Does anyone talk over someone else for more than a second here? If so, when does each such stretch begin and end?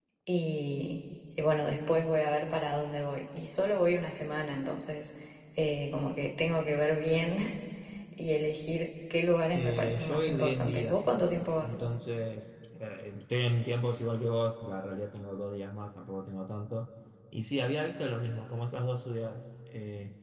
9.5-11.0

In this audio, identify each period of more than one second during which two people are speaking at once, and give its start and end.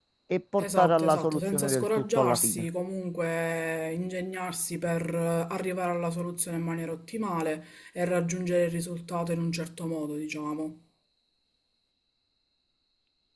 0.6-2.7

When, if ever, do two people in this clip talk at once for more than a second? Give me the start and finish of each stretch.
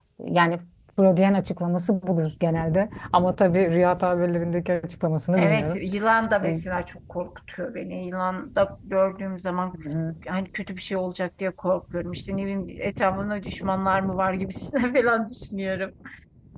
none

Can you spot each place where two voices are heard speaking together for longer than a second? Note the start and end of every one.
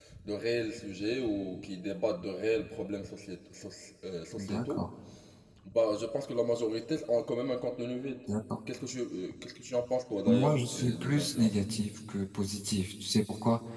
10.3-11.6

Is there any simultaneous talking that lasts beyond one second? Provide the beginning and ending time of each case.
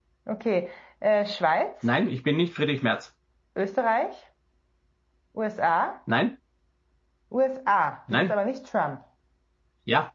none

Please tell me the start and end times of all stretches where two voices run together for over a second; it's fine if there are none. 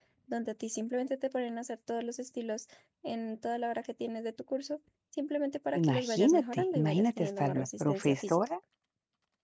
5.8-8.4

